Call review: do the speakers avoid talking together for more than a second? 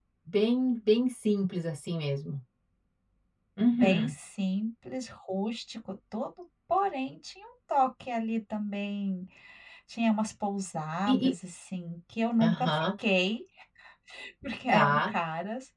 Yes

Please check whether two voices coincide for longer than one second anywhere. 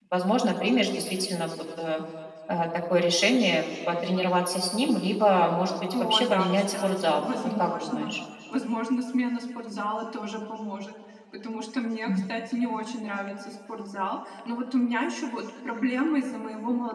Yes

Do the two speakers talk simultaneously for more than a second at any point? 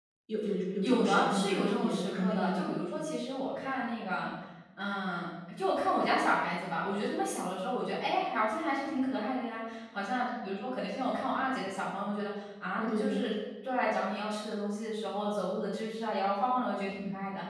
Yes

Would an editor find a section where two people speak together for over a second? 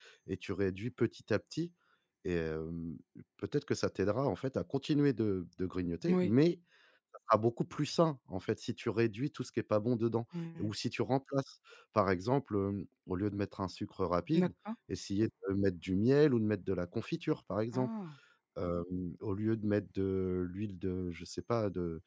No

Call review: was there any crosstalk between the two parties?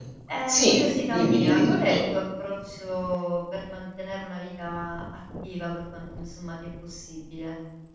Yes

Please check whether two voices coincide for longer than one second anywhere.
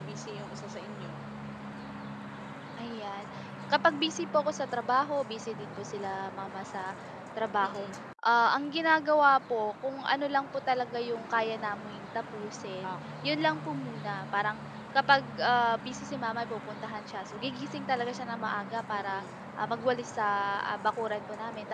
No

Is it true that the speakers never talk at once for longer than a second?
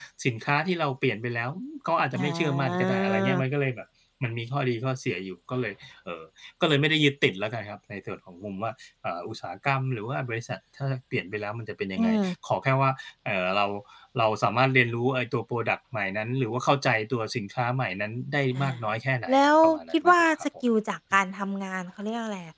No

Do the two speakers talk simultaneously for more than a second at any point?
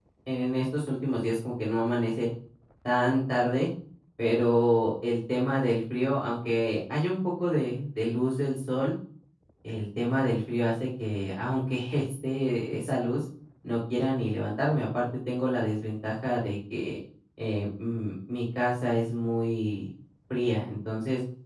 No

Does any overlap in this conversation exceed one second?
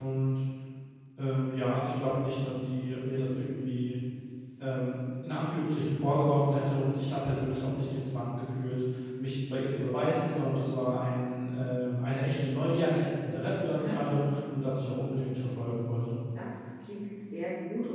No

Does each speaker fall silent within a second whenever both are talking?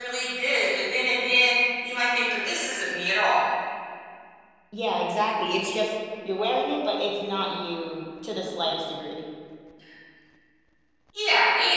Yes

